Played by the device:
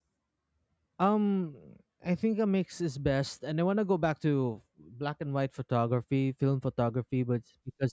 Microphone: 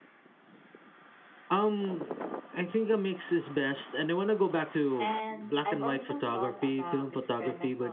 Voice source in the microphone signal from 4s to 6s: both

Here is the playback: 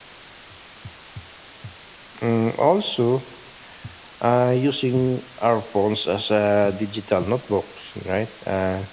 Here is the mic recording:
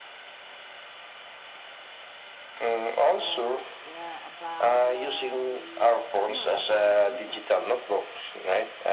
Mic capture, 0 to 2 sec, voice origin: neither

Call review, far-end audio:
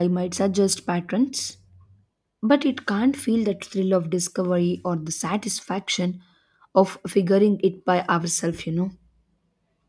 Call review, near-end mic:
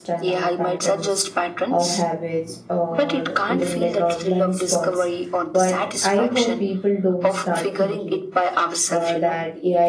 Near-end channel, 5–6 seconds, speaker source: both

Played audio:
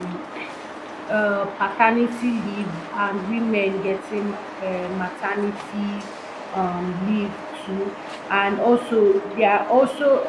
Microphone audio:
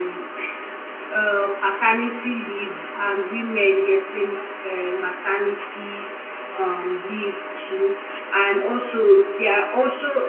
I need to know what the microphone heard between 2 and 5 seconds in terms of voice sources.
echo only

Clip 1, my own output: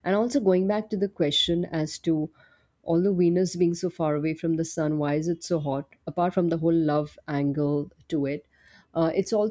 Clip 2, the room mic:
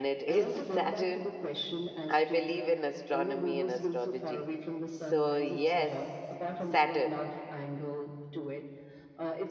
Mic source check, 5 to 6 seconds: both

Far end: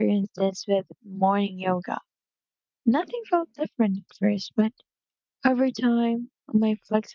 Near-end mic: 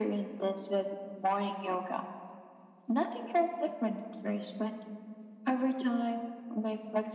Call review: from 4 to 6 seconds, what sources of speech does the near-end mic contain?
echo only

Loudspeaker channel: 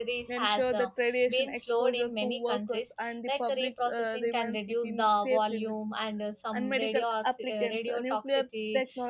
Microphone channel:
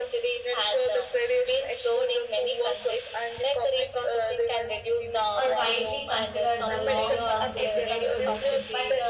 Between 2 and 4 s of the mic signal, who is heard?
echo only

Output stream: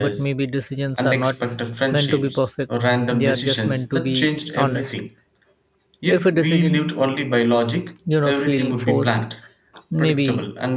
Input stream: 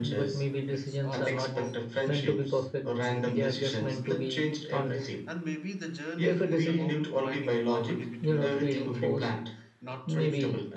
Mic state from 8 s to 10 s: both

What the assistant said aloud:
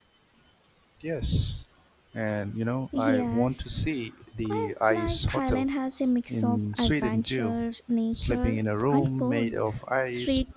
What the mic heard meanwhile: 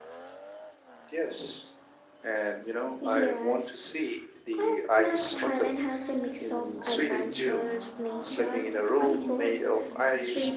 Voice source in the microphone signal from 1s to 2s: echo only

